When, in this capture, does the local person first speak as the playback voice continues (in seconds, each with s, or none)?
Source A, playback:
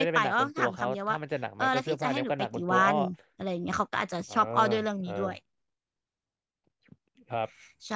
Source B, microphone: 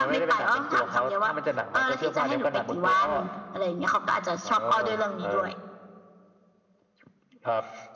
none